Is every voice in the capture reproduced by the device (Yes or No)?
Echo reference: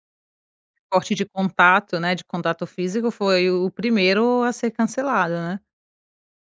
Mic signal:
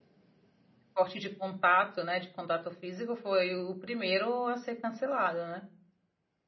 Yes